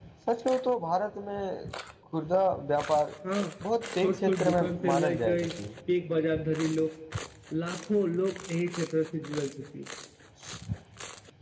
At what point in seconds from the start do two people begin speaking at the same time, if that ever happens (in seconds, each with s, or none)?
4.0 s